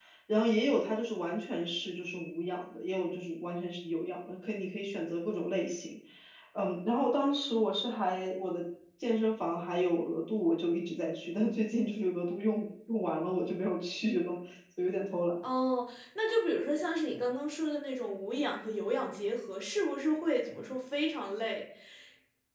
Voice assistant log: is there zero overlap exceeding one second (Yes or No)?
Yes